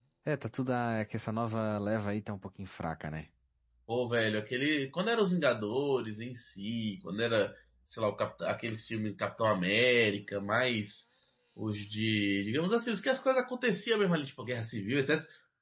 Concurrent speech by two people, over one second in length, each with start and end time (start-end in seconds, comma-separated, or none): none